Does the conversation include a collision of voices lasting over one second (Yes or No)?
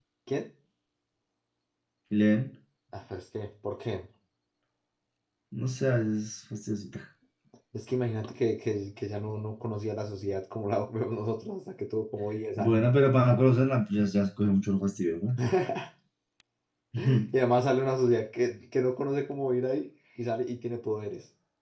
No